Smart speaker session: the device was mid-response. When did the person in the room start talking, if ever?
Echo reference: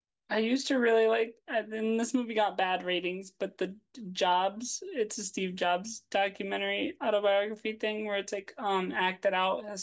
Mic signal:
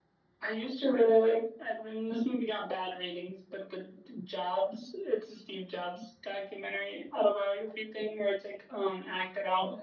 none

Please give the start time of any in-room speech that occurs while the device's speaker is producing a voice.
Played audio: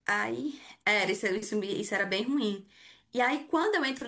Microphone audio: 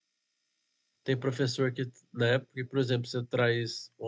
1.0 s

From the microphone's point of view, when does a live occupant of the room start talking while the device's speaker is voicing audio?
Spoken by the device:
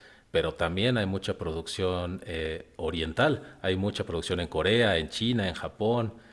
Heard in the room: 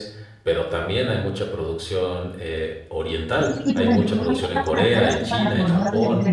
3.4 s

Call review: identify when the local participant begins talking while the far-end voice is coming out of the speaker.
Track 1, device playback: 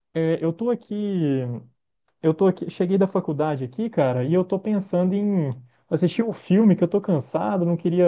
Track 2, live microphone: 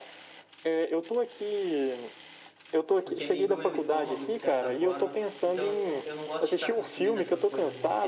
3.0 s

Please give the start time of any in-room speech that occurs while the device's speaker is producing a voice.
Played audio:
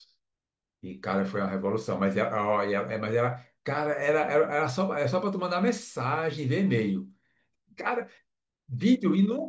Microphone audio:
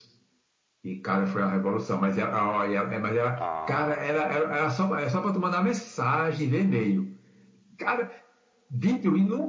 3.4 s

